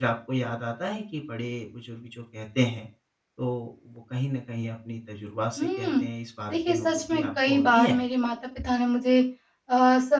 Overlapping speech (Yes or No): Yes